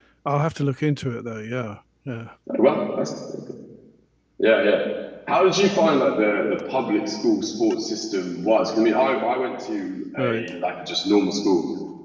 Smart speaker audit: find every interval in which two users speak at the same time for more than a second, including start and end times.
none

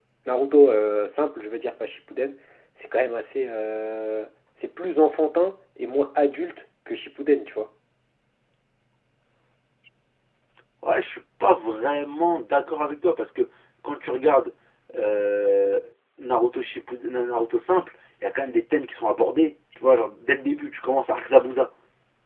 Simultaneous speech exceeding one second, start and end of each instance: none

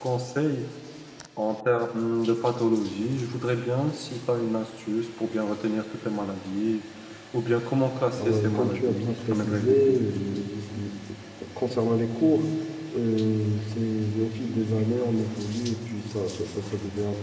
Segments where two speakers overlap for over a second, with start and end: 8.2-10.0

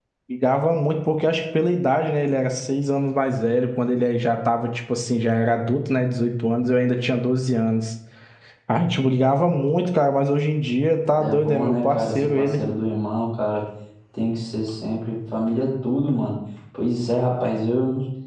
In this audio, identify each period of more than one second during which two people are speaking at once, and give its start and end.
11.2-12.6

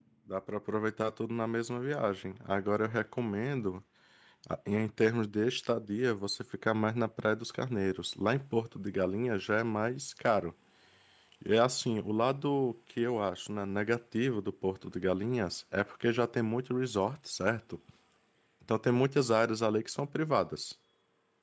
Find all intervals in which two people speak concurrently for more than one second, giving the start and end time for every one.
none

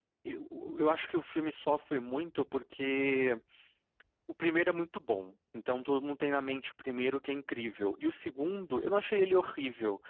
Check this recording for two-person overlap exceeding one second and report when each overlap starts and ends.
none

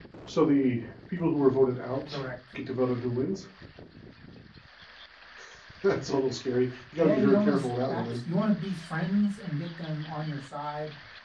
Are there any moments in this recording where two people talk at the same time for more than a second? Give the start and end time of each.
7.0-8.2

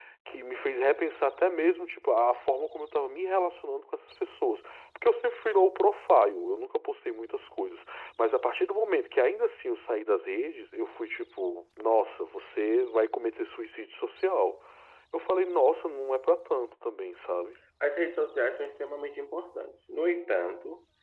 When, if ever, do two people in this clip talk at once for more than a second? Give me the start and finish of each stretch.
none

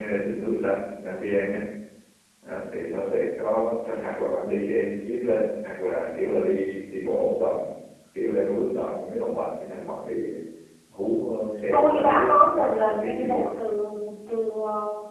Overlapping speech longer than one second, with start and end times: 11.7-13.5

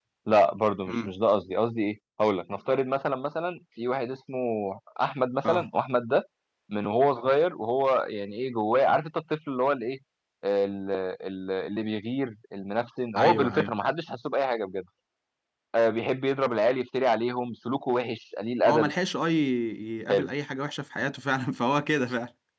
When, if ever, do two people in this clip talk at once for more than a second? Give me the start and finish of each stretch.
none

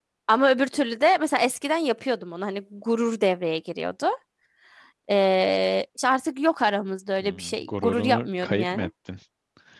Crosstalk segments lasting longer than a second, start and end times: 7.2-8.9

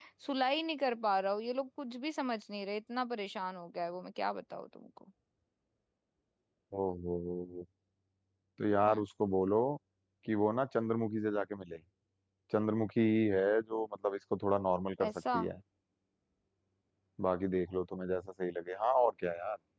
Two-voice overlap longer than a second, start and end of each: none

